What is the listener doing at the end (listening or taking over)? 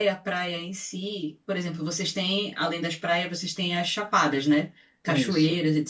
listening